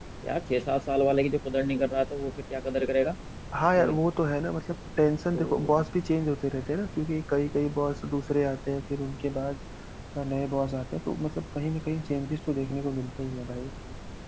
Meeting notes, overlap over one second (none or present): none